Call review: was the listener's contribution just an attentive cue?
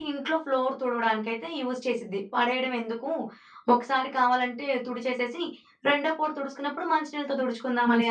No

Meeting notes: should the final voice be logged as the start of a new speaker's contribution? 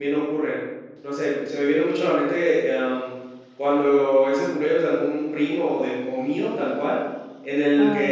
No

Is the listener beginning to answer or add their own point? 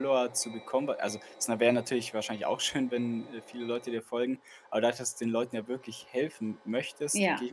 No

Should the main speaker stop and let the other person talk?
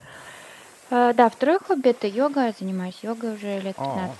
No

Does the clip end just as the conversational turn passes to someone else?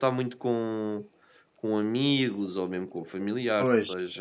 Yes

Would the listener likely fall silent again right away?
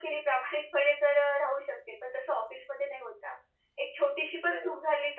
Yes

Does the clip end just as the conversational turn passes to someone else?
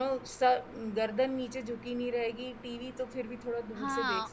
Yes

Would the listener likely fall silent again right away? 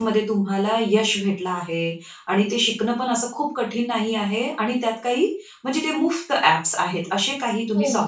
No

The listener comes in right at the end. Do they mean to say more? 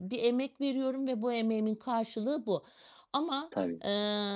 No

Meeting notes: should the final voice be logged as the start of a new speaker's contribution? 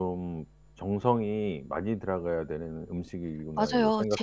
Yes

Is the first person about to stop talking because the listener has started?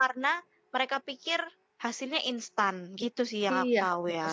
Yes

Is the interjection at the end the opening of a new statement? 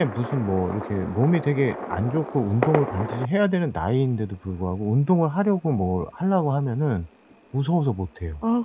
Yes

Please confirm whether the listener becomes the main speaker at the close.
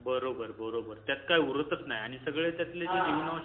No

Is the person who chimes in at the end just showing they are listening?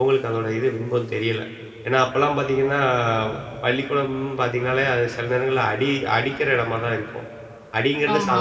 Yes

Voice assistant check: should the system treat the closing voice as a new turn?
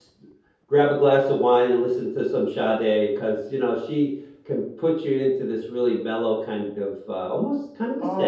Yes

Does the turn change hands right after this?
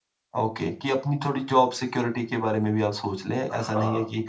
Yes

